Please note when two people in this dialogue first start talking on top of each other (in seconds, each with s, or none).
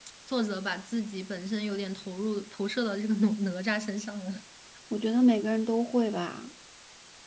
none